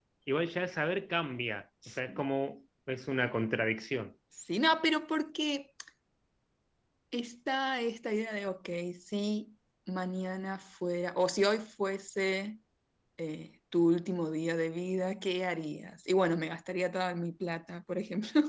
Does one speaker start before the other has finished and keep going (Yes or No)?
No